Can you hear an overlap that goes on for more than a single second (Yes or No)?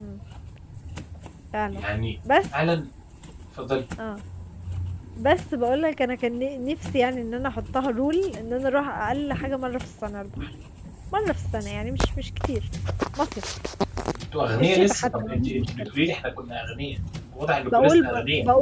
Yes